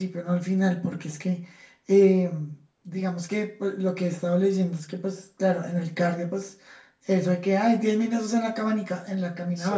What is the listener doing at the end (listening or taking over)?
listening